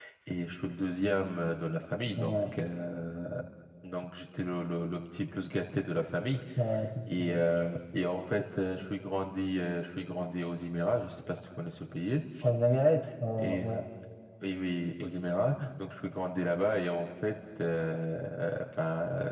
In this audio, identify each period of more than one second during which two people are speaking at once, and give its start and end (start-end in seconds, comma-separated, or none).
none